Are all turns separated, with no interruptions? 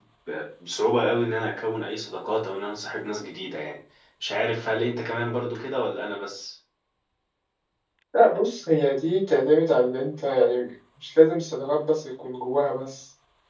Yes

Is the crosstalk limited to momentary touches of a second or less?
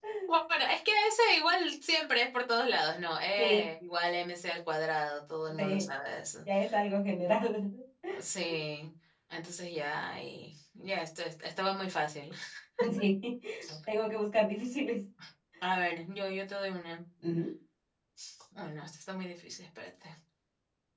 Yes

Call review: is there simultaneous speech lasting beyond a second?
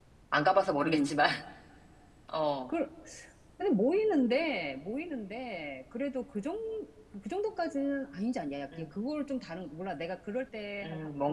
No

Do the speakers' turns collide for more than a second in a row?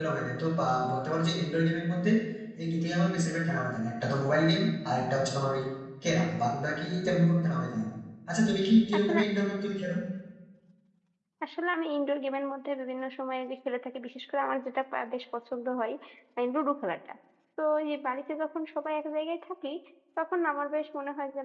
No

